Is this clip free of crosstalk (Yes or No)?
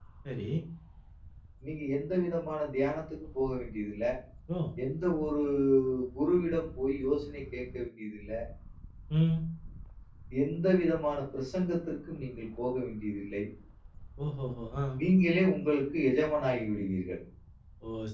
Yes